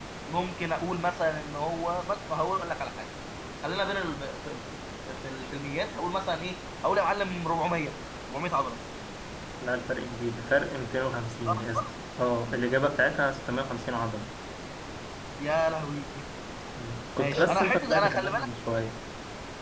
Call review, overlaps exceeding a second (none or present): present